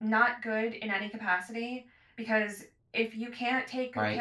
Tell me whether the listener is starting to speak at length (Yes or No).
No